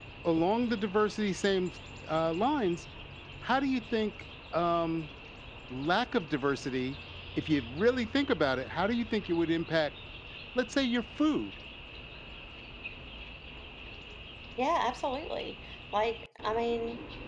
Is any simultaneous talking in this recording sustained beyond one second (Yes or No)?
No